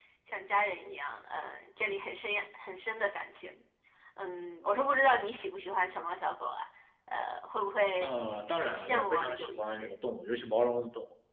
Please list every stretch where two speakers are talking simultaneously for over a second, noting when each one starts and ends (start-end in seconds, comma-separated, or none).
8.6-9.9